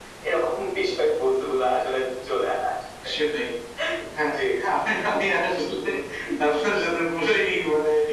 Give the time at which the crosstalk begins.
none

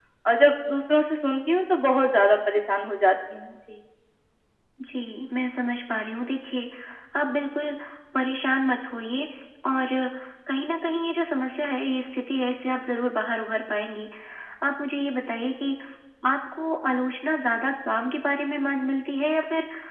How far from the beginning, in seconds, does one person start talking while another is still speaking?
none

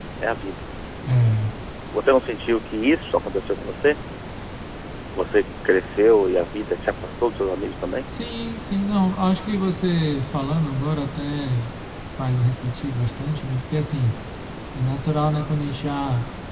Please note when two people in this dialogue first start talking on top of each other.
none

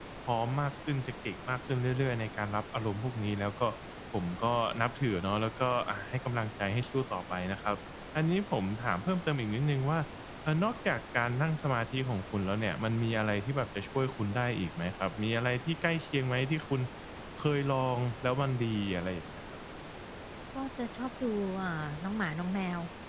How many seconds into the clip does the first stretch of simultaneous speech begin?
none

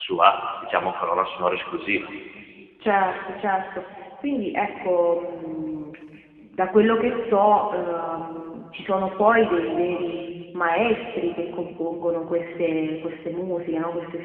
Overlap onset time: none

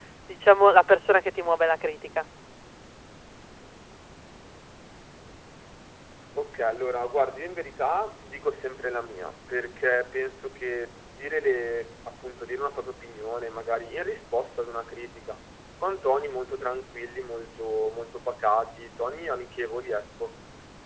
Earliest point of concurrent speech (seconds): none

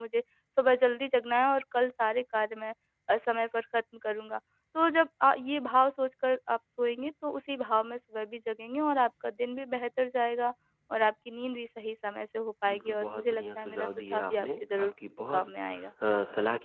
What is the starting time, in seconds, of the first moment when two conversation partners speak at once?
12.7 s

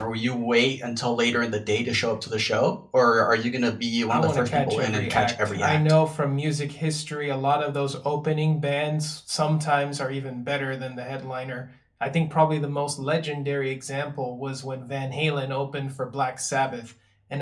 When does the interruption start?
4.1 s

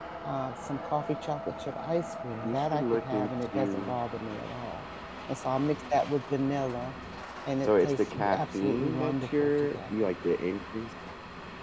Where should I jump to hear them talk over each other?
2.4 s

